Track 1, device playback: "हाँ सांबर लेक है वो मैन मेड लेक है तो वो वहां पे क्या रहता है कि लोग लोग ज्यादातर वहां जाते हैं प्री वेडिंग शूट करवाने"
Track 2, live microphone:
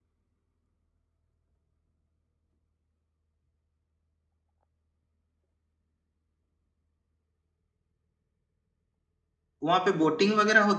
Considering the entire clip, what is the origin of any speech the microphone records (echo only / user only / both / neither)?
user only